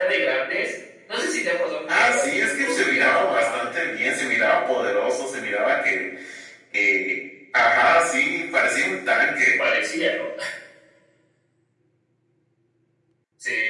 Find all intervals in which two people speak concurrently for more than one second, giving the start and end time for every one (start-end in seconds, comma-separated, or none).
1.9-3.7